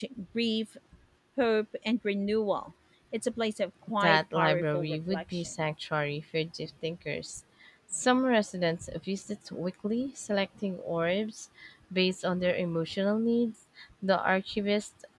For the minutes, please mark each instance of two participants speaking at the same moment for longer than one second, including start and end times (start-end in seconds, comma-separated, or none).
4.0-5.5